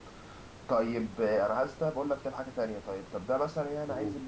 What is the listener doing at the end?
listening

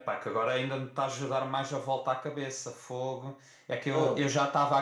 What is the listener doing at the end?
listening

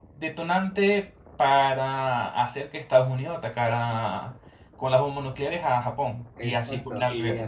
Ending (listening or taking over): taking over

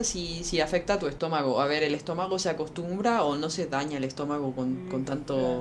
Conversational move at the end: taking over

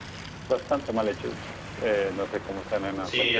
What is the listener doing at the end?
taking over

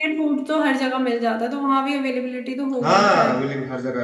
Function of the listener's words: taking over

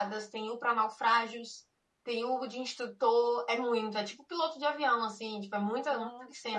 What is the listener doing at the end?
taking over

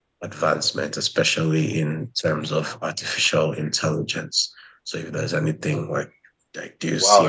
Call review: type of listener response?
taking over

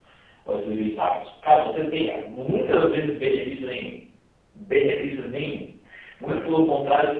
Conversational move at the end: listening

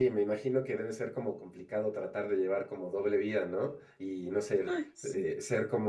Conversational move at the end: listening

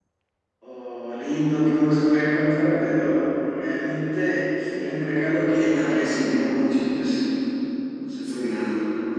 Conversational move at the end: taking over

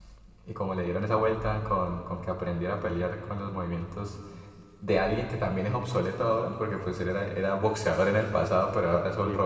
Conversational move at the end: listening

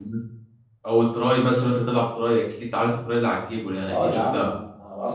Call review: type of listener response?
taking over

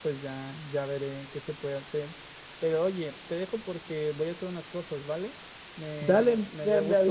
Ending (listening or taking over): taking over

